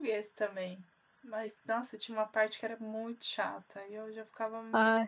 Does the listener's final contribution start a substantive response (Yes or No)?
No